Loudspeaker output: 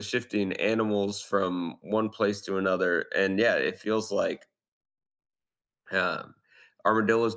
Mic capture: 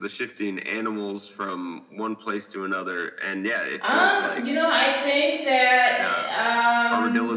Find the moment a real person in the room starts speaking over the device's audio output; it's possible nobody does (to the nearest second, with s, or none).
4 s